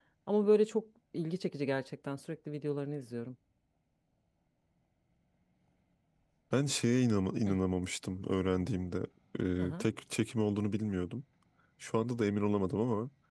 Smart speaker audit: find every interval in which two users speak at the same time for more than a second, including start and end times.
none

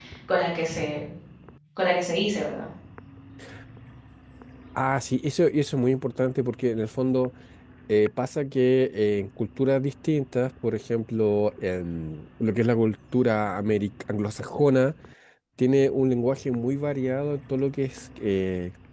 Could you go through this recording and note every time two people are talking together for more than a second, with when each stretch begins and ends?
none

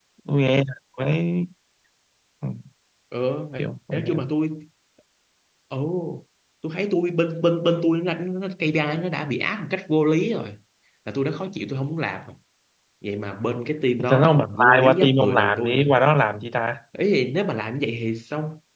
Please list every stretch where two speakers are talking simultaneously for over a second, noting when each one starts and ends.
14.1-15.9

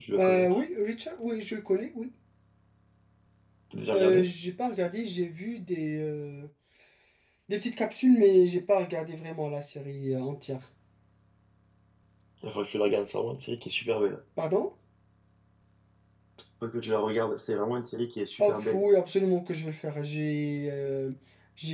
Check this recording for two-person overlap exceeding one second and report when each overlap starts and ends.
none

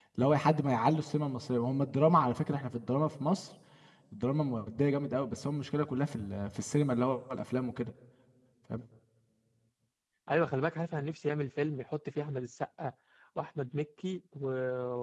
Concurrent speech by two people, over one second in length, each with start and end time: none

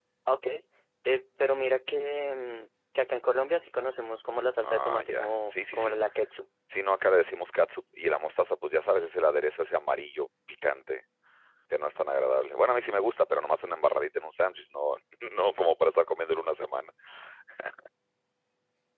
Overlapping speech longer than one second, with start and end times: 4.6-6.0

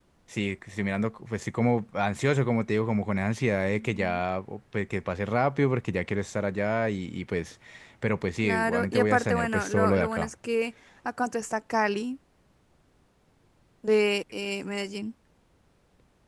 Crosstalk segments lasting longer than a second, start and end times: 8.4-10.3

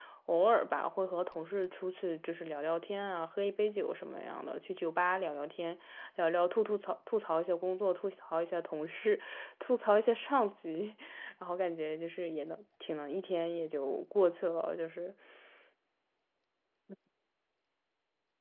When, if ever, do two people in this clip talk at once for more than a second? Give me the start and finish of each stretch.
none

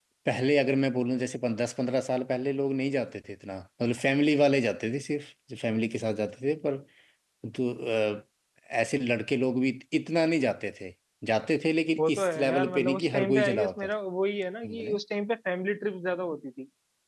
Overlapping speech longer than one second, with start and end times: 12.0-13.9

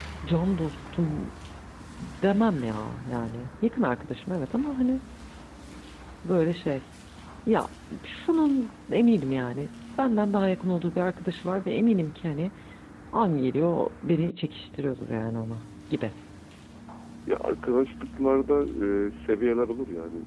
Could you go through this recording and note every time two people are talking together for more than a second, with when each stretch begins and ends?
none

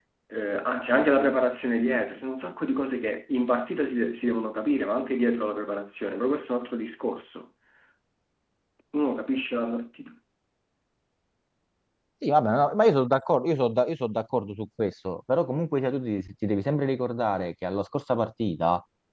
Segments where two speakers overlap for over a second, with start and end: none

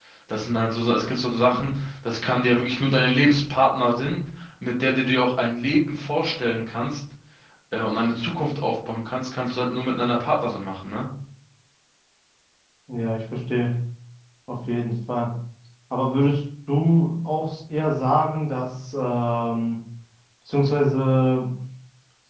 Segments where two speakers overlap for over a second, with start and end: none

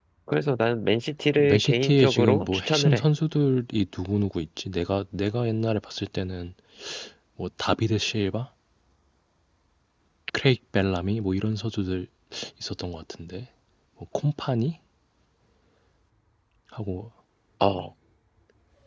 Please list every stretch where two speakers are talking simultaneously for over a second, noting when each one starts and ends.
1.4-3.0

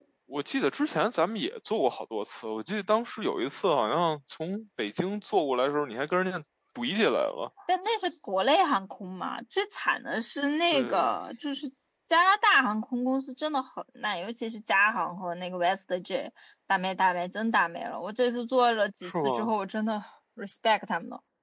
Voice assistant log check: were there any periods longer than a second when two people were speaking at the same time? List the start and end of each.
none

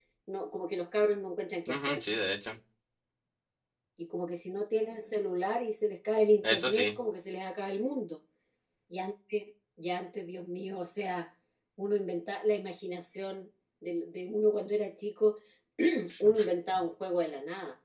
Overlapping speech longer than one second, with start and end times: none

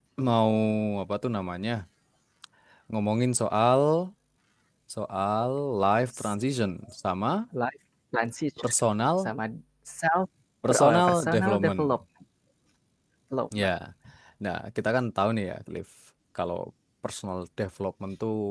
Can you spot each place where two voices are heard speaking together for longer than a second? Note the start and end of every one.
10.7-11.9

